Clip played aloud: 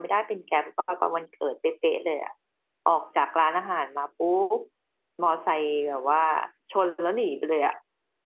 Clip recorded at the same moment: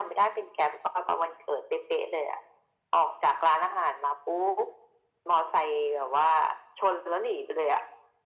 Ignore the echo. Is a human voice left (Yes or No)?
No